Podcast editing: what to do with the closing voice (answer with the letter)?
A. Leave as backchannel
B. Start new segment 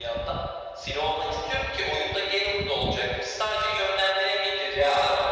A